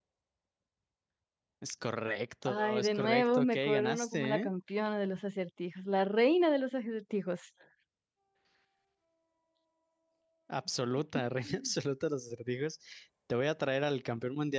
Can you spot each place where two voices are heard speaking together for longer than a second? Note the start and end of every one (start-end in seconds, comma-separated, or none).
2.4-4.5